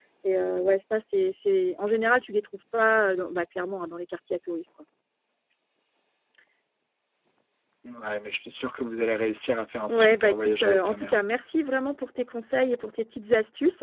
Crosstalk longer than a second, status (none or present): present